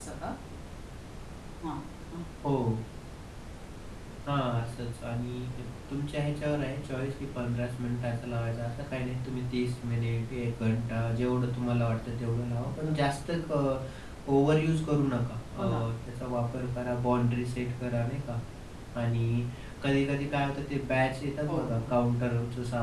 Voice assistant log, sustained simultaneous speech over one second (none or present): none